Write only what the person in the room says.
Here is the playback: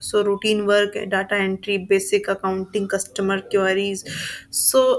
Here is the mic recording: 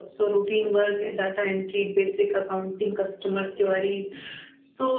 none

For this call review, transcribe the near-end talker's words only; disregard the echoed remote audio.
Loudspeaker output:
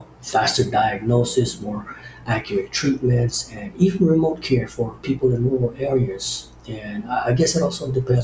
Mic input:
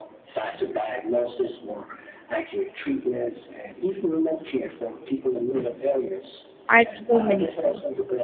artful meaningful.

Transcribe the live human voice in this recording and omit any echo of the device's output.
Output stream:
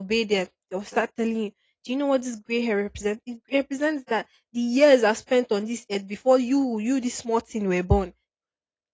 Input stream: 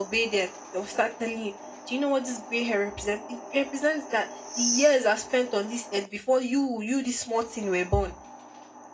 none

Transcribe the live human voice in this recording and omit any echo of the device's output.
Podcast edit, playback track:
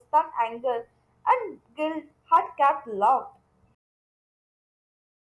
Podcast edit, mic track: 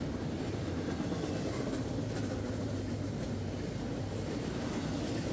none

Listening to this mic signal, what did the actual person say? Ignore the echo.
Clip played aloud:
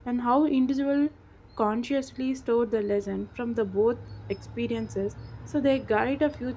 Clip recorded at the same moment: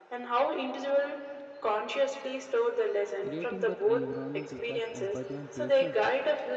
Creating that environment requires empathy and patience.

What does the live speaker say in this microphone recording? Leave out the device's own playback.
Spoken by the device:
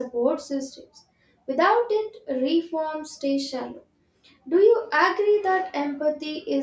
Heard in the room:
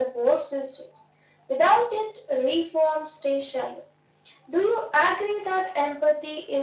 none

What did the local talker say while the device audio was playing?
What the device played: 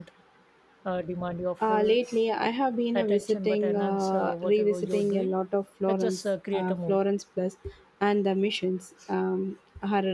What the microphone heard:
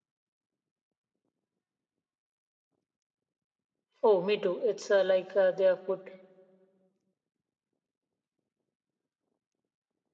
Oh, me too. It's uh, like uh, they have put

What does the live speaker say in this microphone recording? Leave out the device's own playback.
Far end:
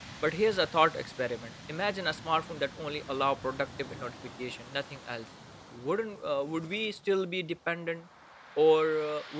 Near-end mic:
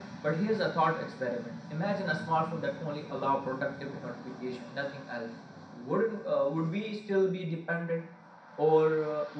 none

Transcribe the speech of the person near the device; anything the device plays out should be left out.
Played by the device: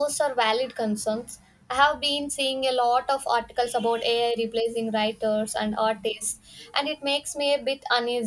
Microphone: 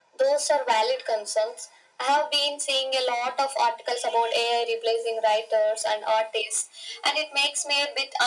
none

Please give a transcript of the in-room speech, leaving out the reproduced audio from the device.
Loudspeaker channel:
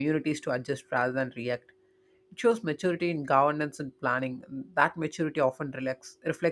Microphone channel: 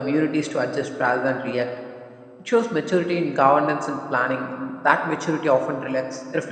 none

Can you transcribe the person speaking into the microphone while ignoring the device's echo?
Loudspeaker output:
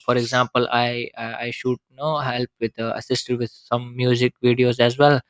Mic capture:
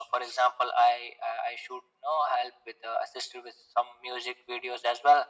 none

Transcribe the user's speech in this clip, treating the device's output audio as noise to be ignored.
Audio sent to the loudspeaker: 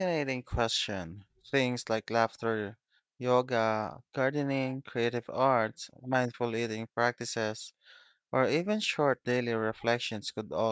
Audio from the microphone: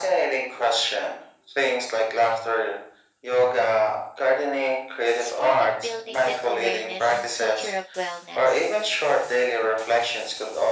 is part of building that awareness and culture of wellness.

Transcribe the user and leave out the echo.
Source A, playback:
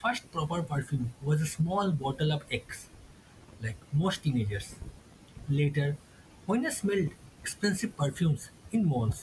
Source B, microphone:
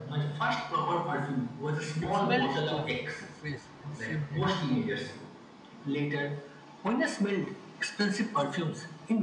It smelled strong and fresh at the same time.

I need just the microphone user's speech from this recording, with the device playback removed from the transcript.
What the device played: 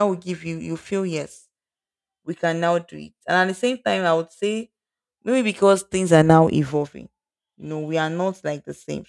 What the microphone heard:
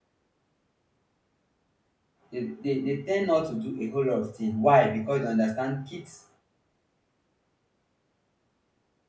they, they, they tend not to do a whole lot of things. Why? Because they understand kids

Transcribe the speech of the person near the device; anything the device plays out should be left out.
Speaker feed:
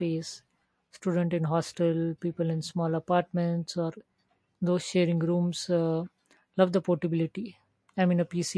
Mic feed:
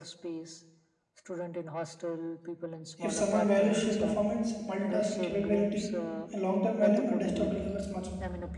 If someone values sheer performance, multitasking capability, and long term value, a desktop delivers much more.

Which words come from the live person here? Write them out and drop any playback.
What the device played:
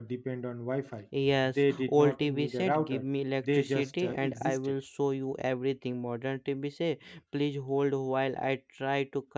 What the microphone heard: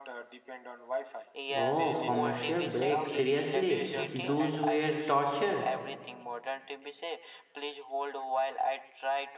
Oh, commercial break. Seriously, those were torture.

